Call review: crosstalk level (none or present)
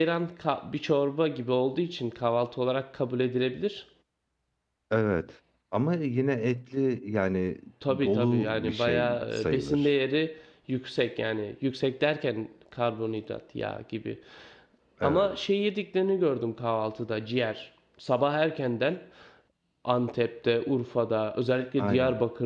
present